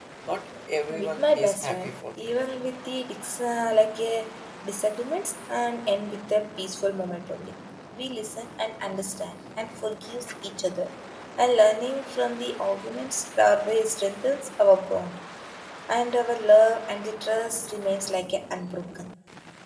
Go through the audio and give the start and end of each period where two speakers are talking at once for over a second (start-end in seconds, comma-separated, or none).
0.9-2.3